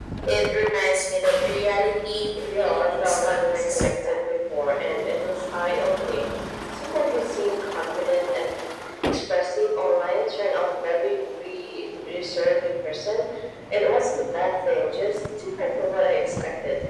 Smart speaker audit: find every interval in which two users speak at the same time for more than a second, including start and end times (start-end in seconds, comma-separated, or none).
2.5-4.2